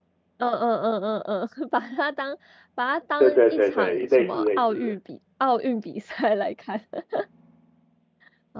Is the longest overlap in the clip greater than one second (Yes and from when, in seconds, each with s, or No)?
Yes, from 3.2 s